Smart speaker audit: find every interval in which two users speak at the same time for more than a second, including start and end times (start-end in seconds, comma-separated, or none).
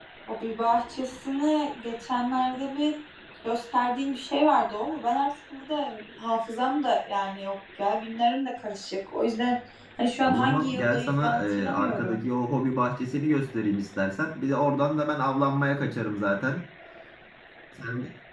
10.2-12.2